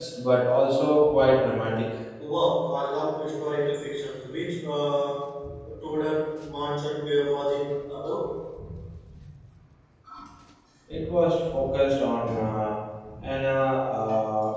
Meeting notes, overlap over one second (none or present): none